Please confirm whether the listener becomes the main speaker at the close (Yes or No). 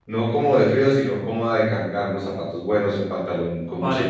No